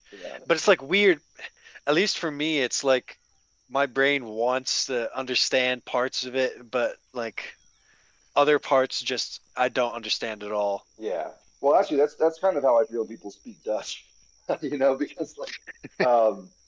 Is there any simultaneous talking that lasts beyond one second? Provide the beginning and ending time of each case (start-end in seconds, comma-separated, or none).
none